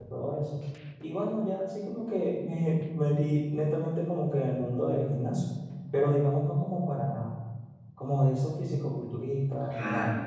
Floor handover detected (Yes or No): No